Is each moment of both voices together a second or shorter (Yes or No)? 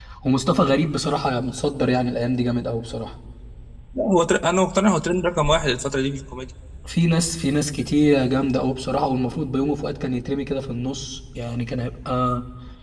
Yes